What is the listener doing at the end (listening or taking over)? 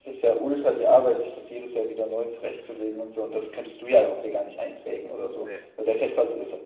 listening